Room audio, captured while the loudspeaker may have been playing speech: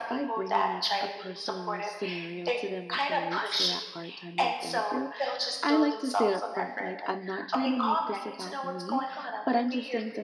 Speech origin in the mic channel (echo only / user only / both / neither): both